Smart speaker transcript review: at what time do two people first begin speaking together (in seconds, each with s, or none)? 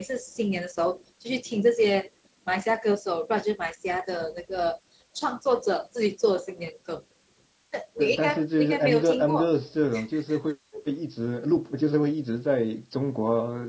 8.0 s